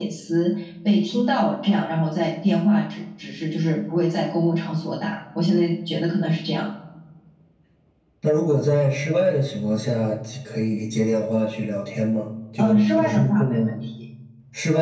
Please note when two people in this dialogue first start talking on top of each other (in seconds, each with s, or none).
12.6 s